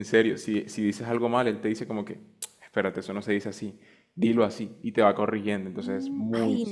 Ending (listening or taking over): taking over